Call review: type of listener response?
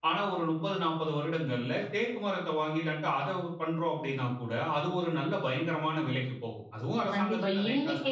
taking over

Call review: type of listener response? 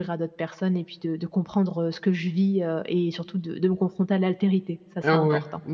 taking over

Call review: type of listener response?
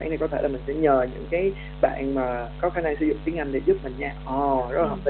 taking over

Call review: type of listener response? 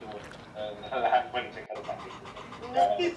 taking over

